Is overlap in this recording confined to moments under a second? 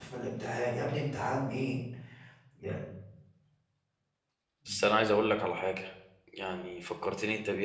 Yes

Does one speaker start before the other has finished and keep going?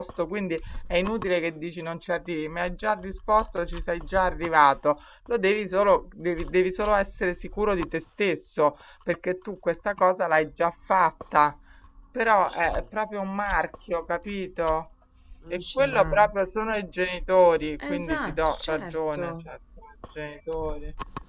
Yes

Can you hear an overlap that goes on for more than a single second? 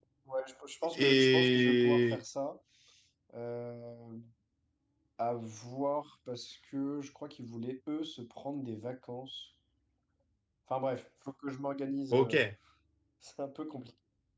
Yes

